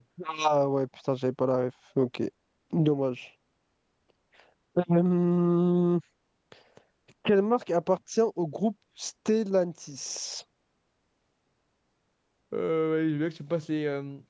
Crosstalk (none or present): none